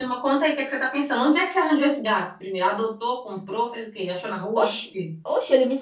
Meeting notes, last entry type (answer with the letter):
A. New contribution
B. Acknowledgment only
A